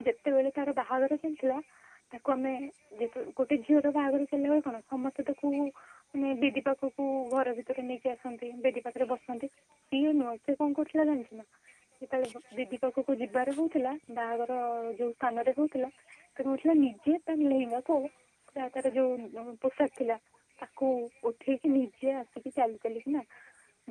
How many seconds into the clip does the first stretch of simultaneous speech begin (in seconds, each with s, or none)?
none